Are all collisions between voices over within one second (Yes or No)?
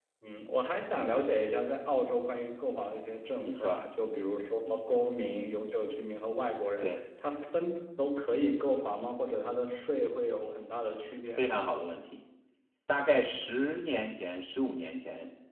Yes